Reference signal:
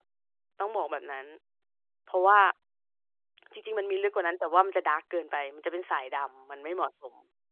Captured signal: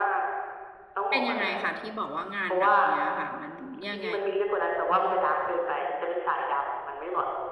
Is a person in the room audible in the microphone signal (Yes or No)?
Yes